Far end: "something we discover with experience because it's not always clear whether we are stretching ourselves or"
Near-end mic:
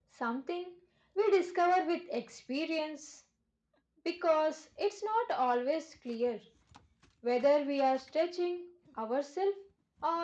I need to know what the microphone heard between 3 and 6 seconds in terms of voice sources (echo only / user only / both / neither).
echo only